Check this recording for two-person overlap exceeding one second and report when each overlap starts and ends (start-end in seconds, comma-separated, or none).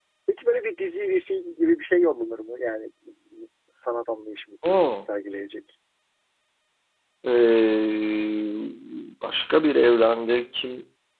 none